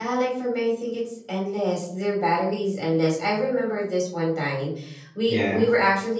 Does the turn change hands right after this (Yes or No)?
No